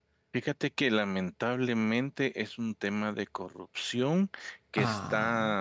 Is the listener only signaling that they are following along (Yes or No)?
Yes